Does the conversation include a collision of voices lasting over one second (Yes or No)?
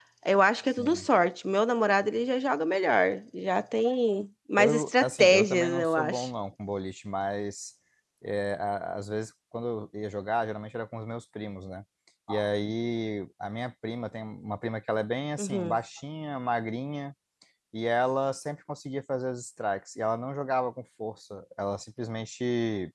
Yes